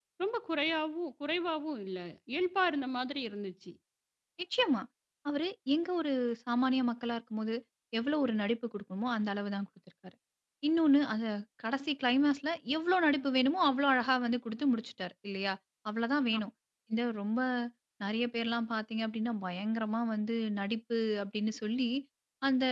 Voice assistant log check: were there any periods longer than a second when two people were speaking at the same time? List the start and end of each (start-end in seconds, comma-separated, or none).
none